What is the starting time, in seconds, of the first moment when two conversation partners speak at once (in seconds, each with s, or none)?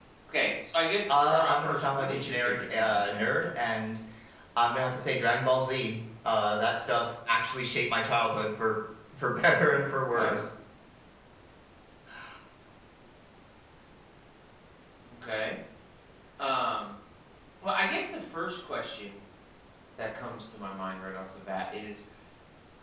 1.1 s